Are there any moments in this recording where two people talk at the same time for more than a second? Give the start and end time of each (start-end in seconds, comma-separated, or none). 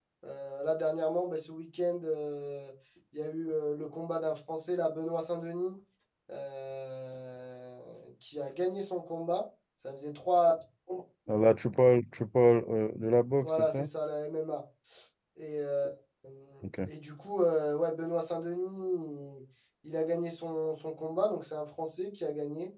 none